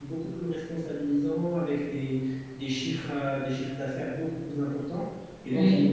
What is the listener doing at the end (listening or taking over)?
listening